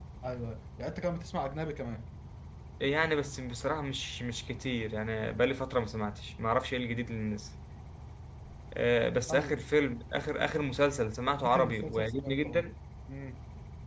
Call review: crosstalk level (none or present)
present